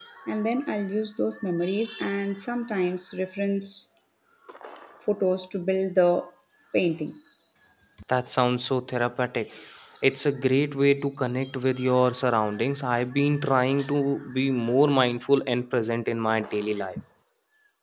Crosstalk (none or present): none